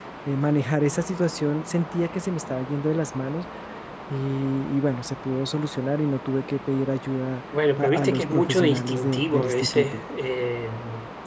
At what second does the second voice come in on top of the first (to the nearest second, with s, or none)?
8 s